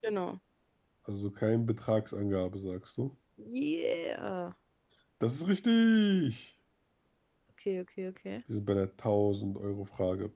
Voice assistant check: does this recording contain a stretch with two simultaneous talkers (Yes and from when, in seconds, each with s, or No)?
No